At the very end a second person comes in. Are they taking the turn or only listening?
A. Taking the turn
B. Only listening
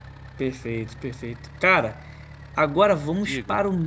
B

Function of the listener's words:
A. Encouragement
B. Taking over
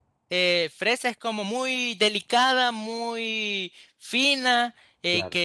A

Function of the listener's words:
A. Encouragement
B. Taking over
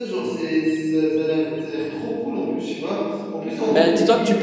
B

